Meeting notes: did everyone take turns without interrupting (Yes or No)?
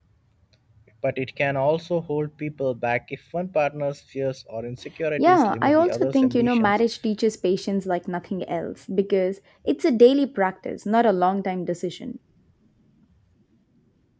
No